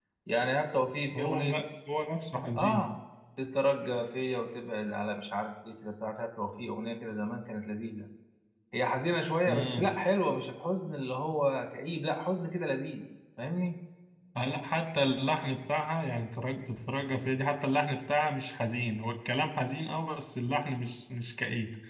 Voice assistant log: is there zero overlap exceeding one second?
Yes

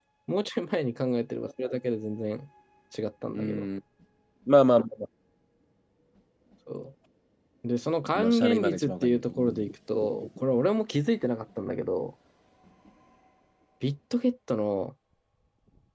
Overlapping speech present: Yes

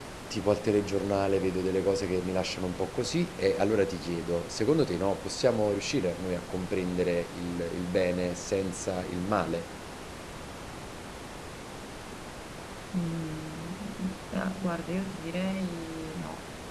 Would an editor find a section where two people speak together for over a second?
No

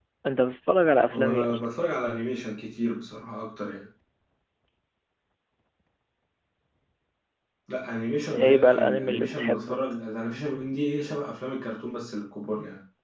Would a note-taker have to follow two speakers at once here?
Yes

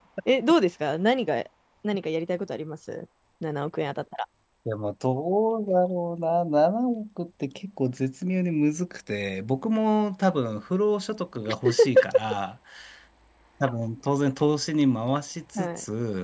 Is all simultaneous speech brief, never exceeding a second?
Yes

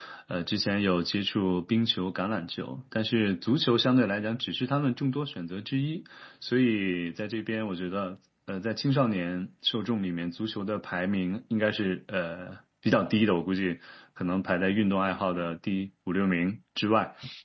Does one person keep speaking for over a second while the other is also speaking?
No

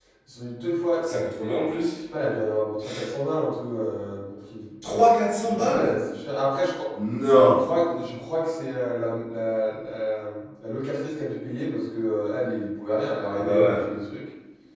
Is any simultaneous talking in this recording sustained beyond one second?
No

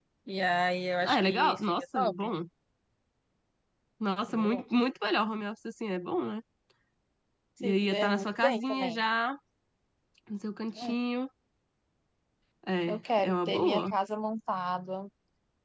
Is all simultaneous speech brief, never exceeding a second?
No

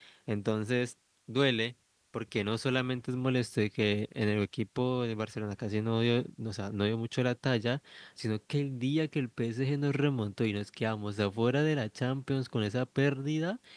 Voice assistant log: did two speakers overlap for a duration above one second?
No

